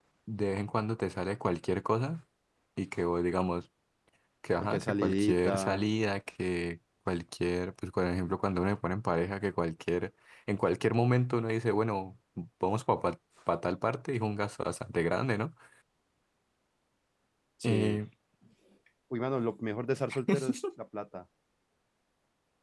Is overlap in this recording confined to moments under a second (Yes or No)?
No